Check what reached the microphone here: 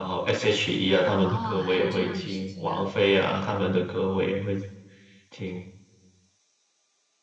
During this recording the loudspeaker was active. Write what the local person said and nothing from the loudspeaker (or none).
哦，还有这样的事情啊，